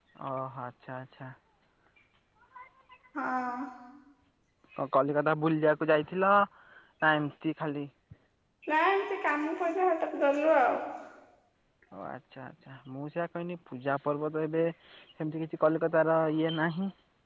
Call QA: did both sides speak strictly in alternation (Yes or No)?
Yes